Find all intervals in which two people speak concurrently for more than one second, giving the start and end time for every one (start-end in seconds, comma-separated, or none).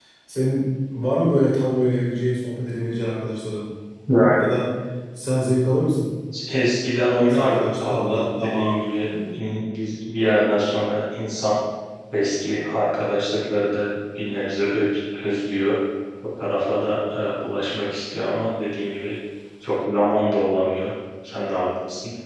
7.3-8.8